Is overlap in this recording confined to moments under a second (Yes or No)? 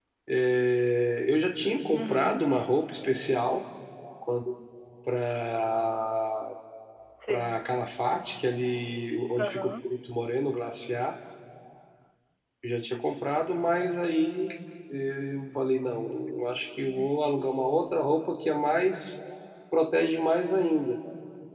Yes